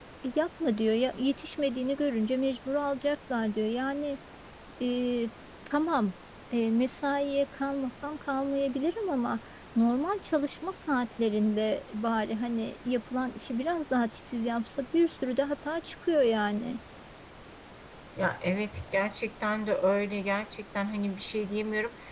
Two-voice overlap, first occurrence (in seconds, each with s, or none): none